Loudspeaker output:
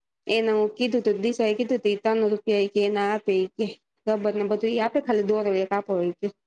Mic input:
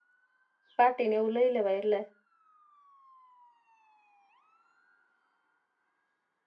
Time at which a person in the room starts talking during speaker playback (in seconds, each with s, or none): 0.8 s